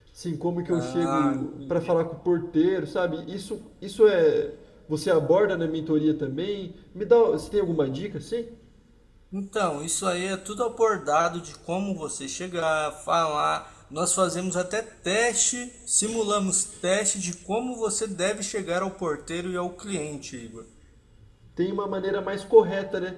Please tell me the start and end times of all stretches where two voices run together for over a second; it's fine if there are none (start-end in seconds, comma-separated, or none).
0.7-1.9